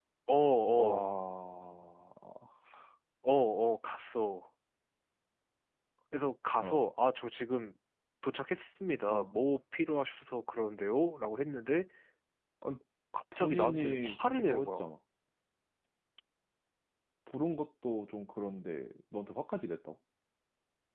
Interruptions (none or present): present